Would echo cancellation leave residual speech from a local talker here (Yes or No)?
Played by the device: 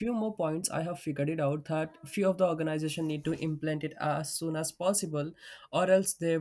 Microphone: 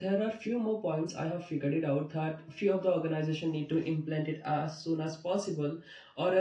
No